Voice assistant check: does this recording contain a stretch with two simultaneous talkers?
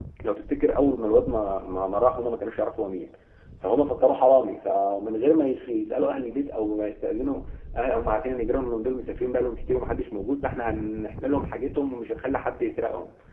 No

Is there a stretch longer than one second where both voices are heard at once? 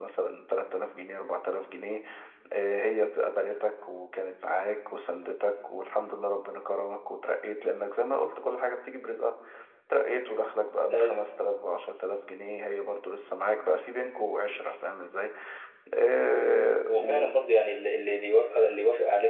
No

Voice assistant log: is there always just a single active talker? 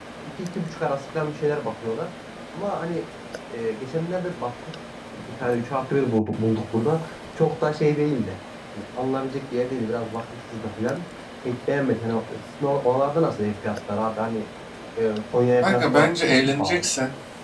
No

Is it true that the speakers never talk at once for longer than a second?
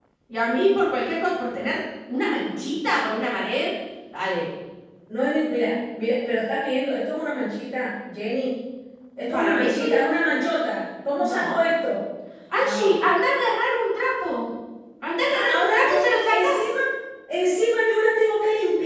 No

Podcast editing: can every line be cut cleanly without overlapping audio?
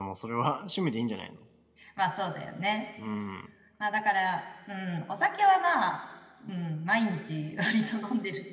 Yes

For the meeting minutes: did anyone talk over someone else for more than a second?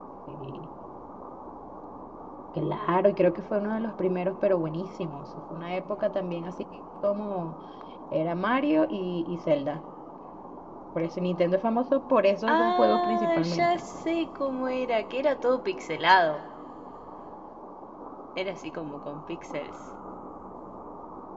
Yes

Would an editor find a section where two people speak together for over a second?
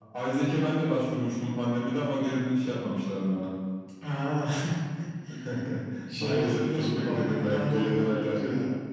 Yes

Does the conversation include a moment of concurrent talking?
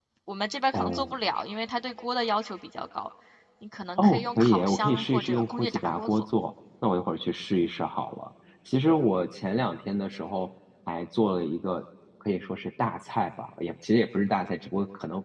Yes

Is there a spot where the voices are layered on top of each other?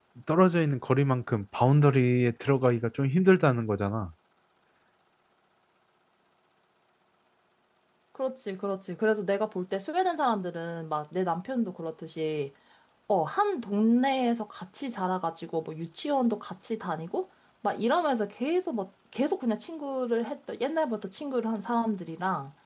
No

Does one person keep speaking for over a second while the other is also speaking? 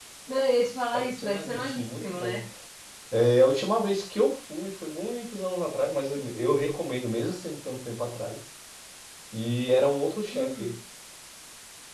Yes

